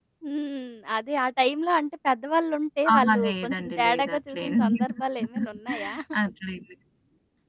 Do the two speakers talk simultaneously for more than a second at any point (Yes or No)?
Yes